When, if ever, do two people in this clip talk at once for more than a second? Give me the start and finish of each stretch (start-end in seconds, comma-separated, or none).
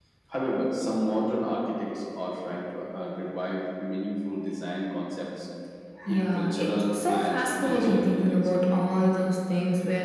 6.1-8.7